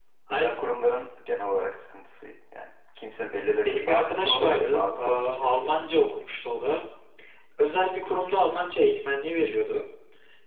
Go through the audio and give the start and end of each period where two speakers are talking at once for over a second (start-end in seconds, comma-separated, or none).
3.4-5.6